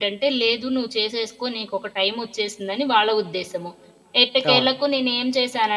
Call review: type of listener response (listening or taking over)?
listening